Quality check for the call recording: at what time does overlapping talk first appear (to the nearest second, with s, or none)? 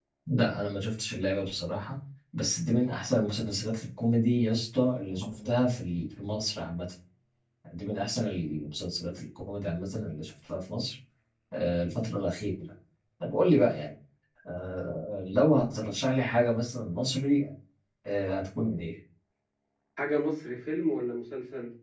none